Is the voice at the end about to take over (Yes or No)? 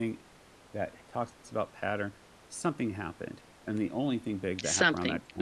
No